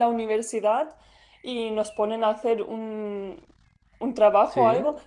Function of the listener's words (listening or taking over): listening